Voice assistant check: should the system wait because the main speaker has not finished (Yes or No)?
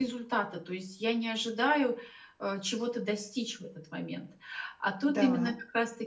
Yes